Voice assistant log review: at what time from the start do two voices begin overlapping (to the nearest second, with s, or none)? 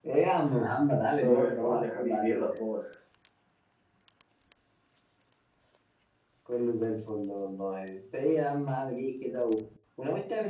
1 s